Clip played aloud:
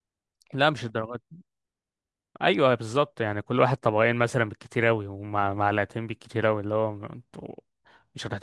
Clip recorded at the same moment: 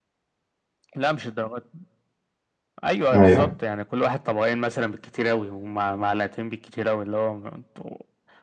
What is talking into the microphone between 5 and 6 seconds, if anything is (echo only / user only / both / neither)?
echo only